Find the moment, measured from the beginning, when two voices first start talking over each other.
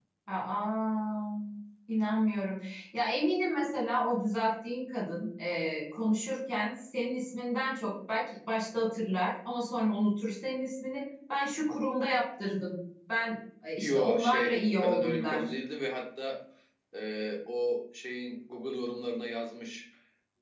14 s

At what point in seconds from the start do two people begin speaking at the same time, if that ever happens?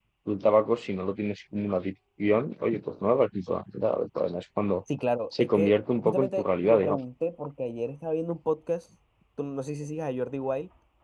5 s

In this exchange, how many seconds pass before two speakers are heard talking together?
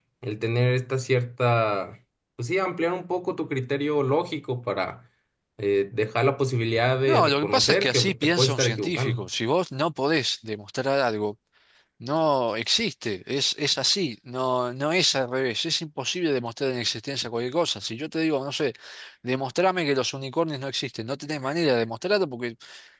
7 s

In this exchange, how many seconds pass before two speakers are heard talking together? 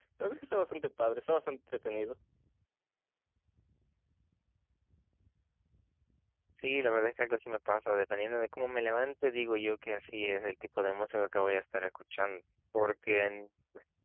none

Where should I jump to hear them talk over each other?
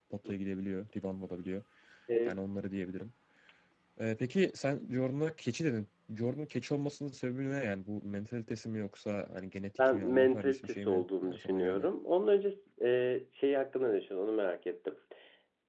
10 s

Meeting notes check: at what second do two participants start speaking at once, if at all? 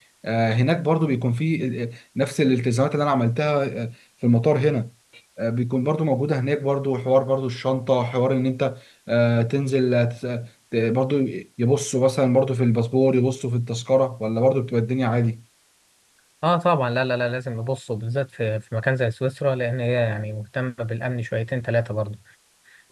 none

